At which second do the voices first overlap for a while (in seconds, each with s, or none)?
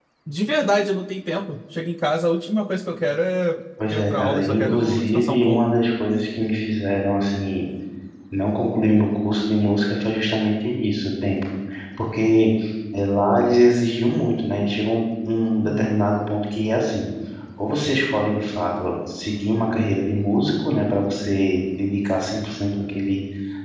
3.9 s